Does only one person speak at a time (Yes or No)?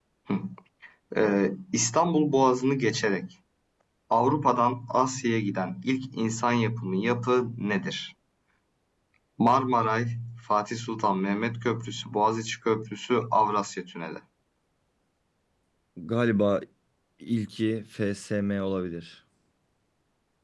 Yes